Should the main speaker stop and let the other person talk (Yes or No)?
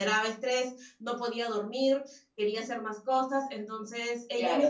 Yes